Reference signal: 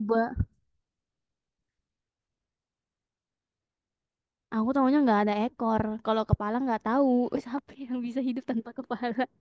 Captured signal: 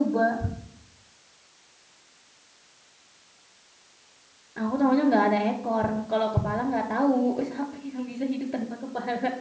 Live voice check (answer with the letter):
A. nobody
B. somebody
A